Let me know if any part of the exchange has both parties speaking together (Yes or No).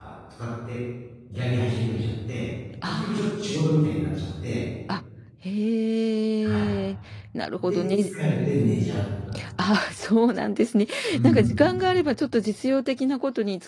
Yes